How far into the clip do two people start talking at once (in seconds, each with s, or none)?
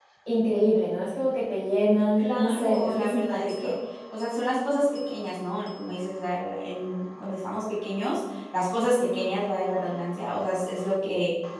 2.2 s